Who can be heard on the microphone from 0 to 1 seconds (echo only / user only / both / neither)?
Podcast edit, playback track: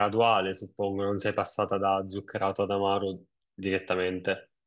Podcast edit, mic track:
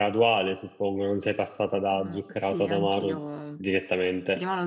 echo only